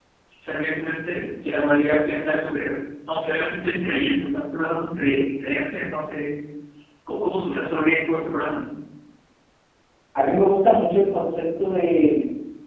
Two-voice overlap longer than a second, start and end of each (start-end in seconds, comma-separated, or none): none